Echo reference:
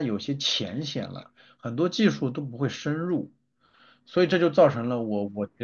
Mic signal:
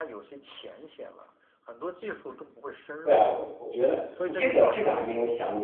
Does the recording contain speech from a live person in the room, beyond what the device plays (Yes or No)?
Yes